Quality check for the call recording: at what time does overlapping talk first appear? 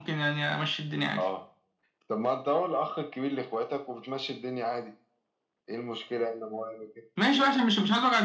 none

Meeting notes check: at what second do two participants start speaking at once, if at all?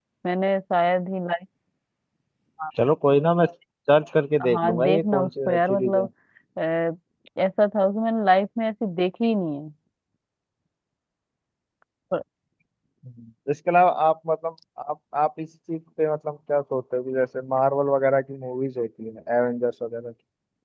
4.4 s

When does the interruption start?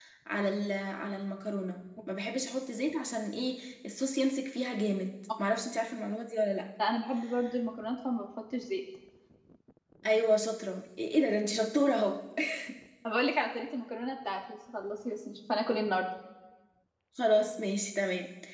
none

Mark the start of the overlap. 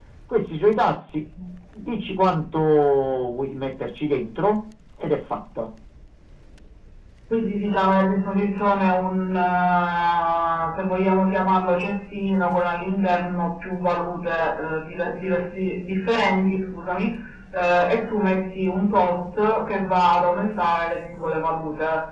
none

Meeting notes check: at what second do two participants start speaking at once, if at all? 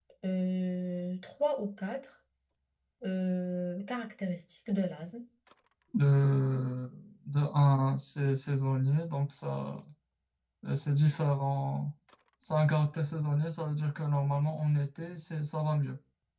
none

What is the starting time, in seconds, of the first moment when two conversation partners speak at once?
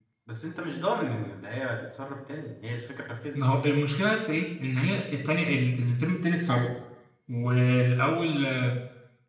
none

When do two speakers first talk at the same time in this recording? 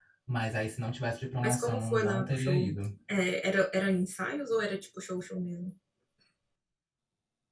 1.4 s

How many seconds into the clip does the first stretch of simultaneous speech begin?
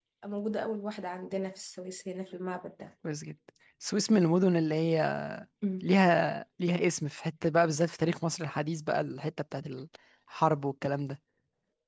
none

